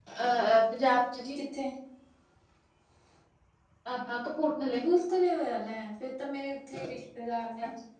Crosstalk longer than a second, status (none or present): none